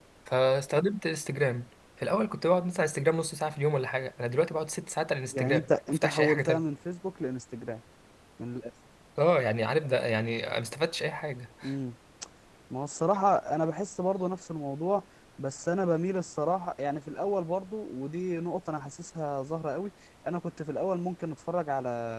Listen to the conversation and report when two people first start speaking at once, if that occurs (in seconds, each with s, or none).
5.3 s